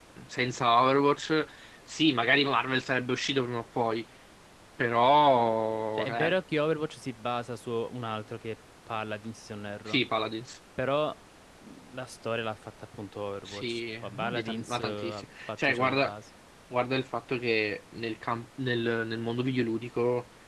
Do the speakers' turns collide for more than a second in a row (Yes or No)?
Yes